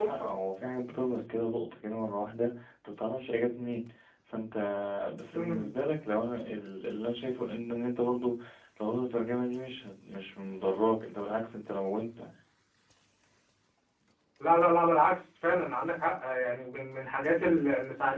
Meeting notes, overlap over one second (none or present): none